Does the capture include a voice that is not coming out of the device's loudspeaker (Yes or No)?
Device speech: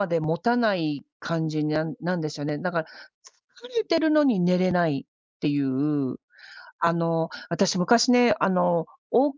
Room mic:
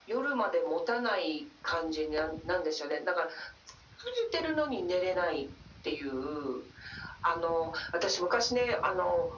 No